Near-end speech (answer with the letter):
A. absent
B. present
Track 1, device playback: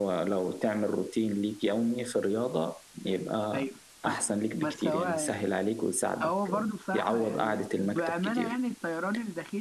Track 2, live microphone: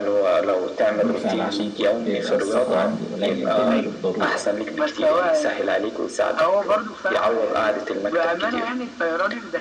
B